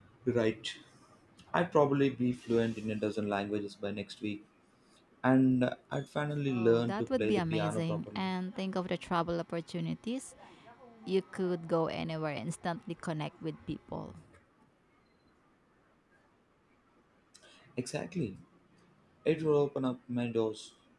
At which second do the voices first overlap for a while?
6.5 s

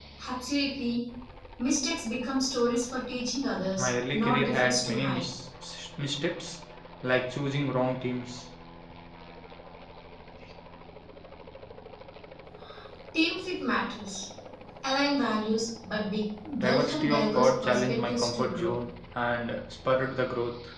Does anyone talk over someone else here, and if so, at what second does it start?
3.8 s

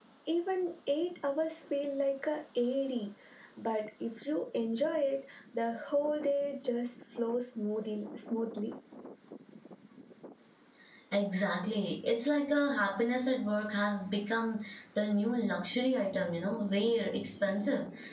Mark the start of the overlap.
none

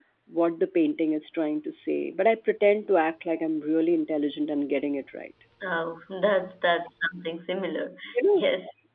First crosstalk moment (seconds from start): none

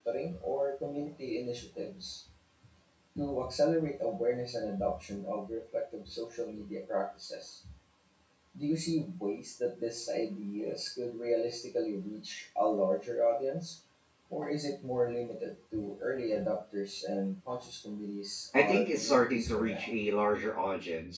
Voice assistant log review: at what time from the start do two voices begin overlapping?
18.5 s

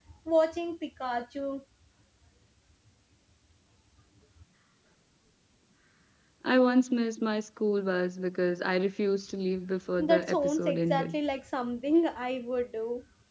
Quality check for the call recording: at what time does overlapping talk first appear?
10.0 s

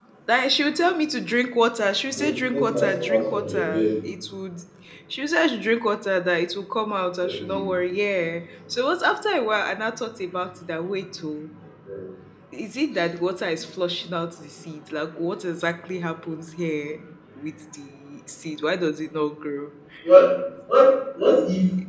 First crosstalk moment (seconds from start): 2.1 s

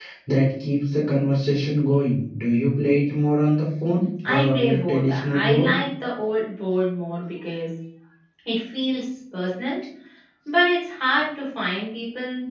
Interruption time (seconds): 4.2 s

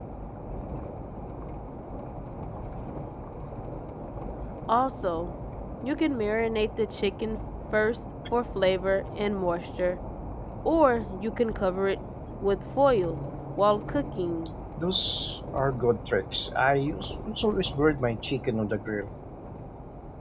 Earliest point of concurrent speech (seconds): none

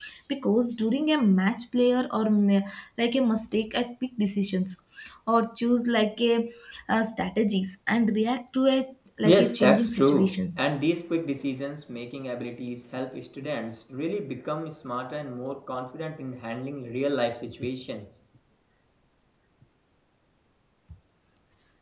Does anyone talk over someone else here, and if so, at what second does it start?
9.2 s

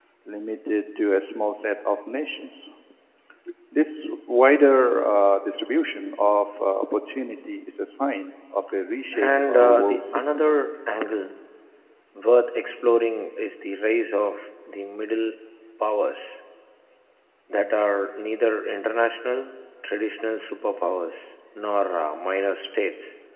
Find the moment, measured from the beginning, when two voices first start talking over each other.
9.1 s

